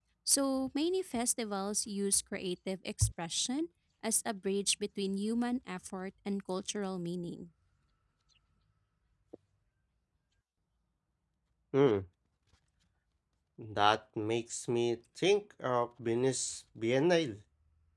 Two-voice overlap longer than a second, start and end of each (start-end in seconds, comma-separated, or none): none